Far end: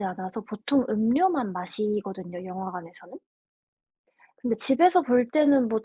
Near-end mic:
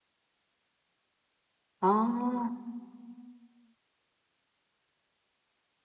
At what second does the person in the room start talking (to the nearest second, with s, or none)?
2 s